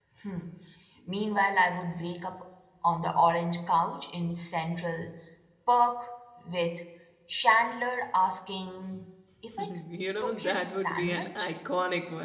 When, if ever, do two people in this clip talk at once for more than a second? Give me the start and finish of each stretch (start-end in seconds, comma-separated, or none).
10.2-11.5